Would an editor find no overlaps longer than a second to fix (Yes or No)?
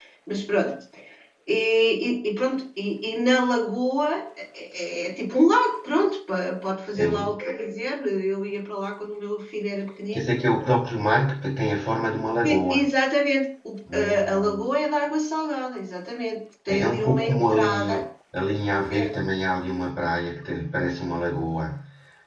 No